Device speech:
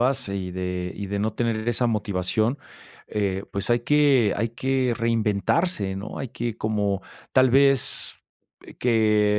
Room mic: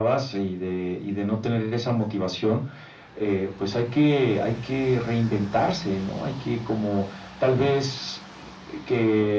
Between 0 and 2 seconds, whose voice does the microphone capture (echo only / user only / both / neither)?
echo only